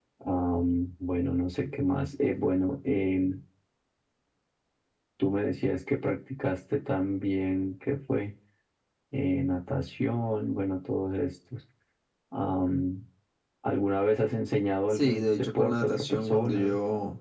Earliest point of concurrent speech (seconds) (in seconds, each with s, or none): 14.9 s